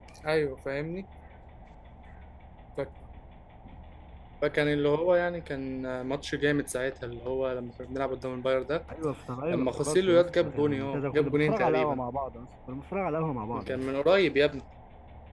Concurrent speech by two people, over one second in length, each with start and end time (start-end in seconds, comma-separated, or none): 9.5-12.0